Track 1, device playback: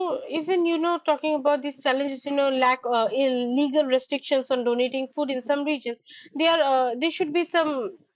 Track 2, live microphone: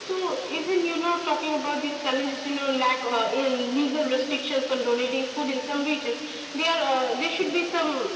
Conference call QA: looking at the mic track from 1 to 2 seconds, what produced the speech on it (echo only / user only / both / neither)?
echo only